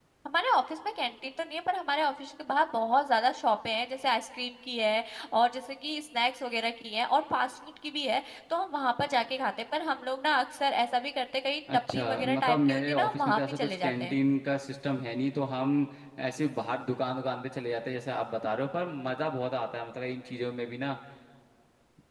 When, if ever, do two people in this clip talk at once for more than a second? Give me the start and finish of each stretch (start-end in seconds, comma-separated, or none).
11.9-14.1